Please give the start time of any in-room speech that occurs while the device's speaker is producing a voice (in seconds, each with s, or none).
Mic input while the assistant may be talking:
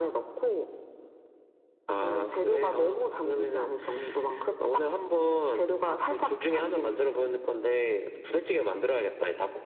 none